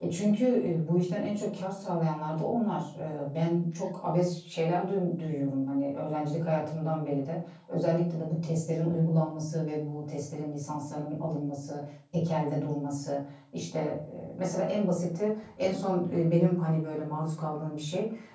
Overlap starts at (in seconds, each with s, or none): none